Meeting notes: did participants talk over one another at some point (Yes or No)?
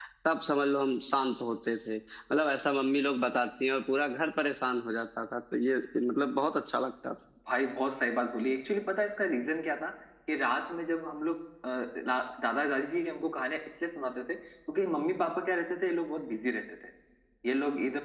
No